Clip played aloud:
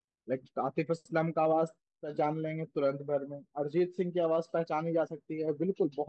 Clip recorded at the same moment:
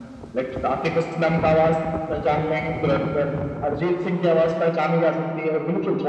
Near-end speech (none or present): none